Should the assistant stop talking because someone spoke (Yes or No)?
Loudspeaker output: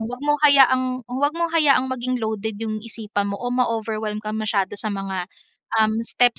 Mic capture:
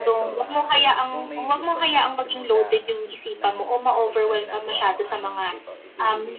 Yes